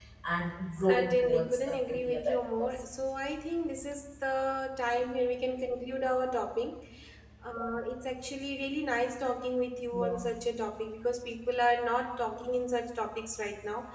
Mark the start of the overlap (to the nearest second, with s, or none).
1 s